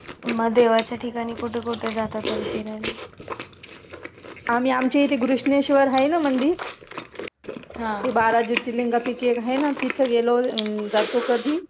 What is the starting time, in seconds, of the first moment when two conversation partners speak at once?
none

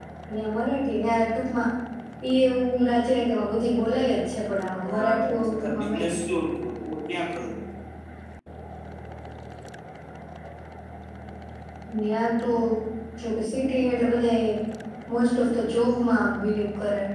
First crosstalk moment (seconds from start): 4.9 s

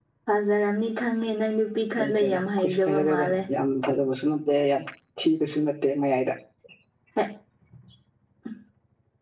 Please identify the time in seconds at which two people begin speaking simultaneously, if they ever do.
2.0 s

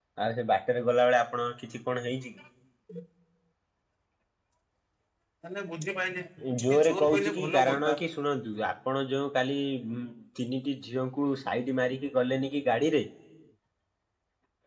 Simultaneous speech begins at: 6.4 s

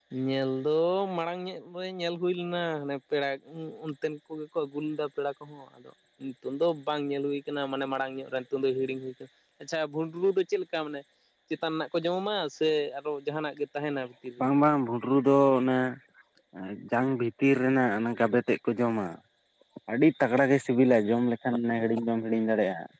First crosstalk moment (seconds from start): none

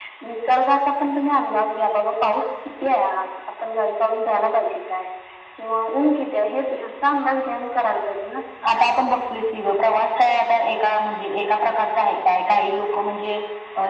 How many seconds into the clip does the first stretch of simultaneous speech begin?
none

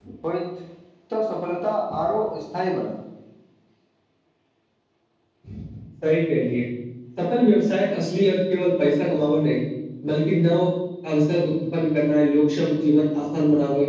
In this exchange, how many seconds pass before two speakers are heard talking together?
none

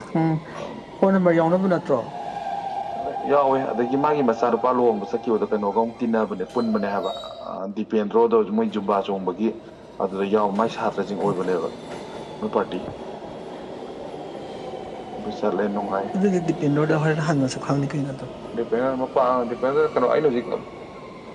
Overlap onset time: none

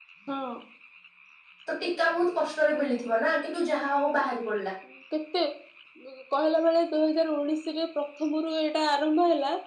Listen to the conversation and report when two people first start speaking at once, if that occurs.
none

